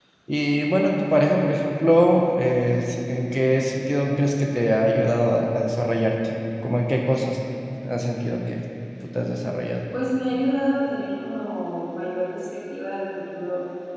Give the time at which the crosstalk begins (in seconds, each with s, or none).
none